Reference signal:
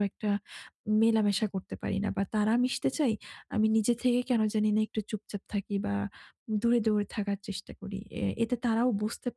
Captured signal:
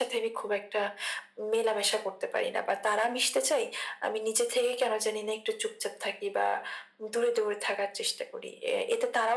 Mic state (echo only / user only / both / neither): echo only